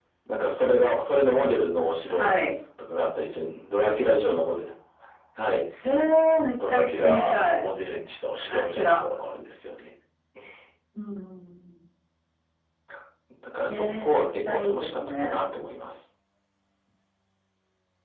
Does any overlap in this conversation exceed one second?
Yes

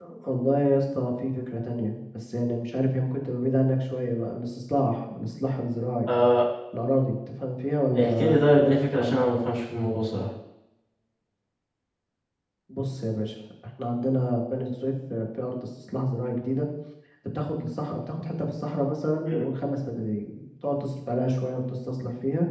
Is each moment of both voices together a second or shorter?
No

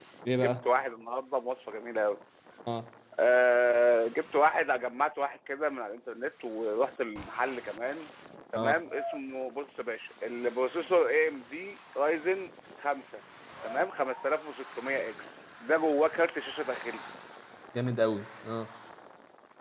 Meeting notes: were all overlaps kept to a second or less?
Yes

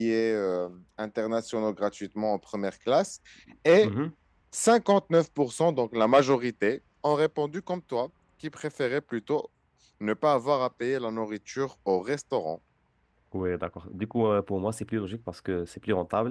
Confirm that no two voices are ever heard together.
Yes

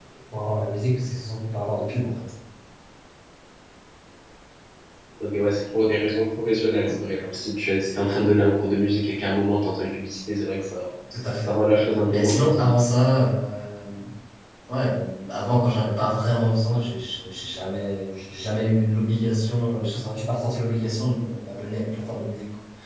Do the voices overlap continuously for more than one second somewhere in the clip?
Yes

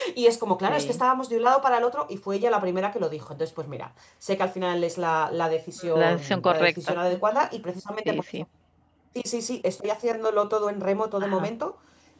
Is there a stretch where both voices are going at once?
Yes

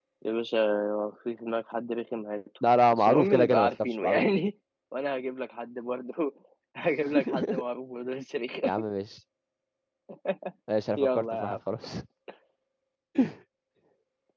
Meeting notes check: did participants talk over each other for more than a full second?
Yes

